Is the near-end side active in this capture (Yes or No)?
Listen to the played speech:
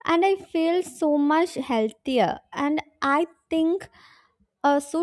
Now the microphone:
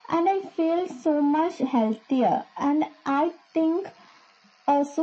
No